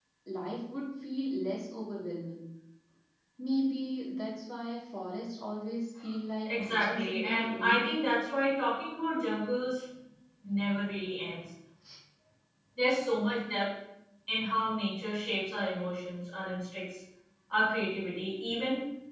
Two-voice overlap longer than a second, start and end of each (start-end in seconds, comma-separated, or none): 6.5-8.0